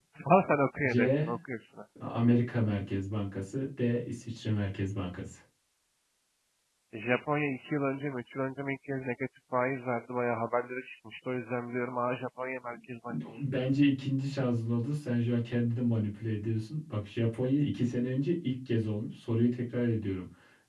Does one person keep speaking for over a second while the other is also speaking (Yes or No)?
No